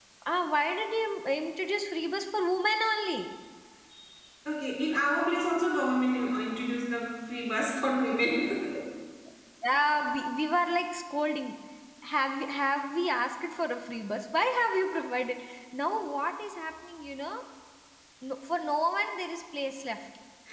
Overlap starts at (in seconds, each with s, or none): none